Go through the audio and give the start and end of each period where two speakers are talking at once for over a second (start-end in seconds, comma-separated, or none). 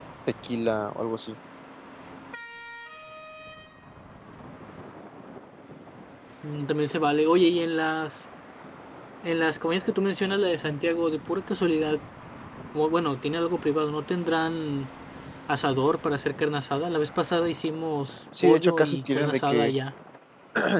18.4-19.7